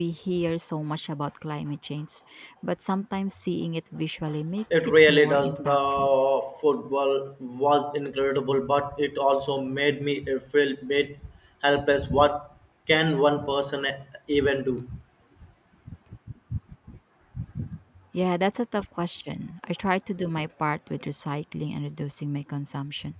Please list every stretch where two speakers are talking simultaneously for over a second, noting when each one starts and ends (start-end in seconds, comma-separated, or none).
4.8-6.1